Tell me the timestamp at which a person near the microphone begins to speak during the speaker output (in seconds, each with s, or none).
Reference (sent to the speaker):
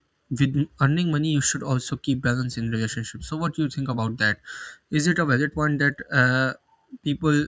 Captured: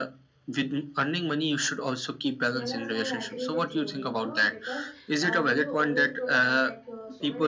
2.5 s